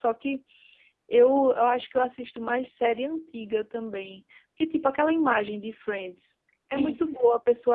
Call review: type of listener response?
listening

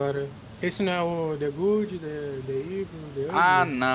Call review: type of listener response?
taking over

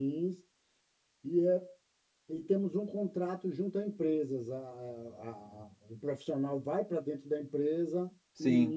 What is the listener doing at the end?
taking over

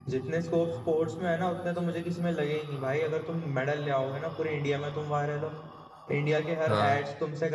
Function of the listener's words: listening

